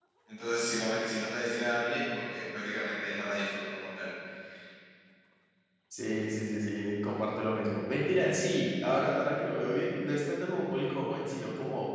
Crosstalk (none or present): none